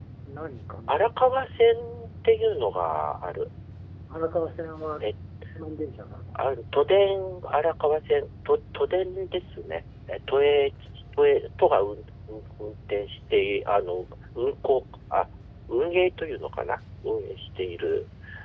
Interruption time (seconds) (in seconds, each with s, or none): none